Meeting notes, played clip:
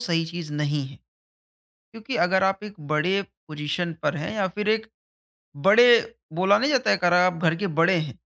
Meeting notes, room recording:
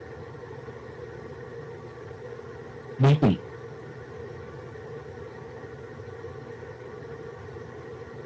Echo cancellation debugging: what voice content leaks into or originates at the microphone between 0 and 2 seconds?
neither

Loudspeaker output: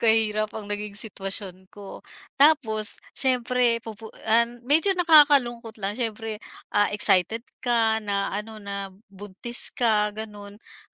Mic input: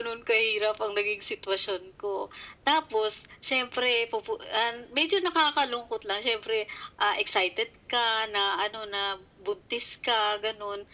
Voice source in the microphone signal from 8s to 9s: echo only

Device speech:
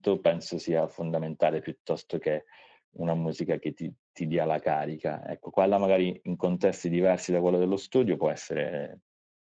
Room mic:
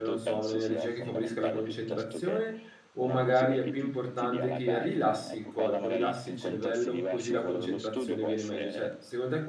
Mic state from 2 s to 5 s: both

